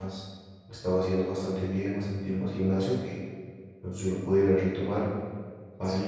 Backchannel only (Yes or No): Yes